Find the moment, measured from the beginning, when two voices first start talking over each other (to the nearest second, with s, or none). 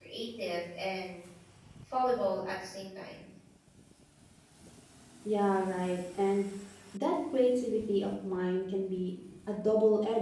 none